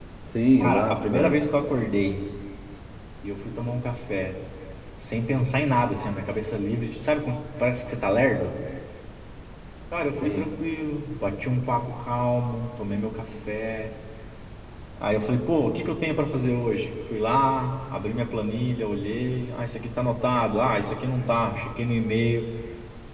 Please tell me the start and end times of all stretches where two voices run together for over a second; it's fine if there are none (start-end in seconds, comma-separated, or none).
0.6-1.8